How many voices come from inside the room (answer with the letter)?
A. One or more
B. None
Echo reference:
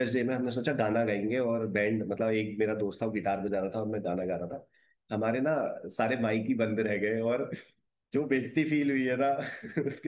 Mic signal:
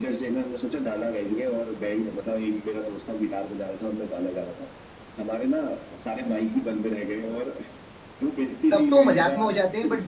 A